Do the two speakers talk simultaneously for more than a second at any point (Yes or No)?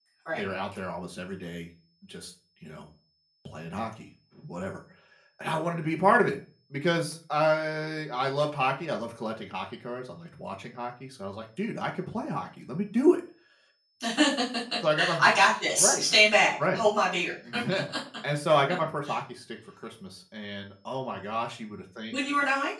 No